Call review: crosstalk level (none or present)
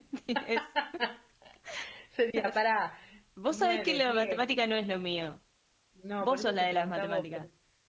present